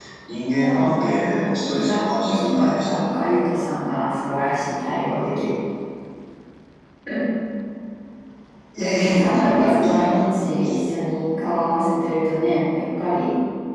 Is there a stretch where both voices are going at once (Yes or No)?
Yes